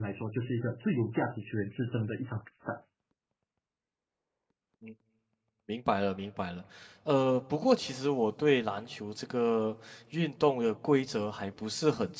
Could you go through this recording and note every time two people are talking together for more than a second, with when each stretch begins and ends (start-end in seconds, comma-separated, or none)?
none